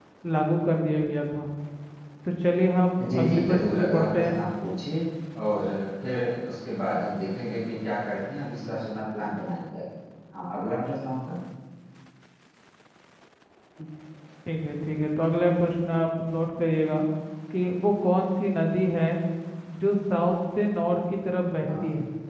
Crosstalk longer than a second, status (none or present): present